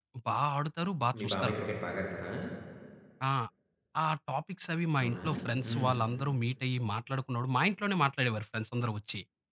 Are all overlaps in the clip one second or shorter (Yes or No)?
Yes